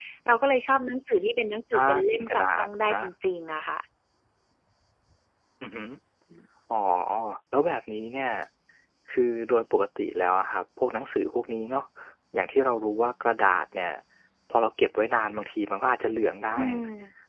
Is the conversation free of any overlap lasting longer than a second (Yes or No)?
No